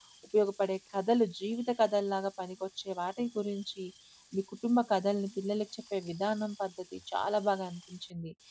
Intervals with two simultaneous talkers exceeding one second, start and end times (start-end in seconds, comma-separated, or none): none